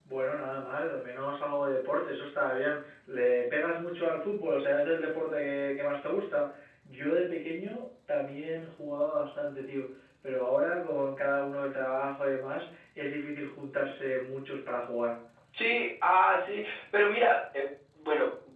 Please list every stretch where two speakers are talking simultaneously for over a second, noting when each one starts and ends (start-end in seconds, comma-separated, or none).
none